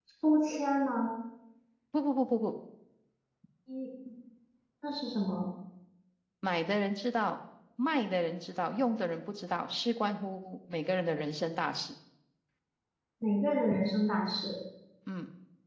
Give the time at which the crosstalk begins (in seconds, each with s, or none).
none